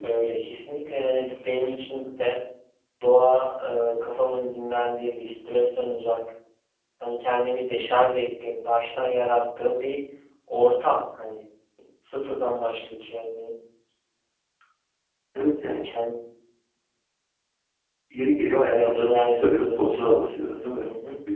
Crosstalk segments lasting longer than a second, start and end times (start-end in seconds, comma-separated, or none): 18.7-20.9